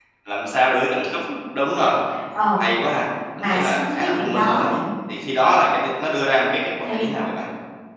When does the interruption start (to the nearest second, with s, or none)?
3 s